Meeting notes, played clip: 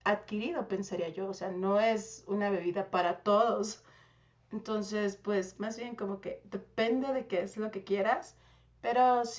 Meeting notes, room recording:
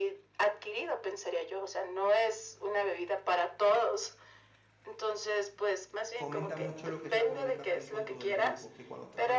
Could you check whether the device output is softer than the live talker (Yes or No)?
No